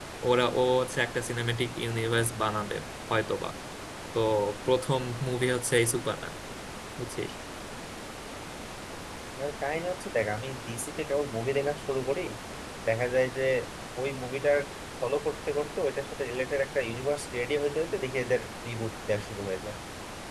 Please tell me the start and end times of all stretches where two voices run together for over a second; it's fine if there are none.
none

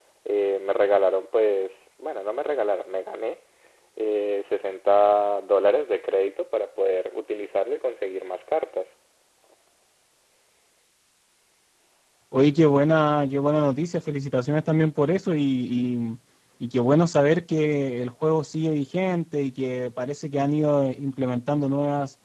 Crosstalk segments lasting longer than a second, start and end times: none

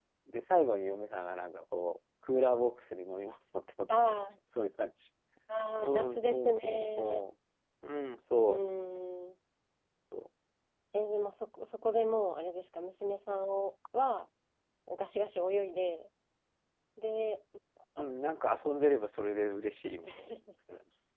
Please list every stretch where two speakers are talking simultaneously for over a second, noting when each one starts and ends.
5.8-7.2

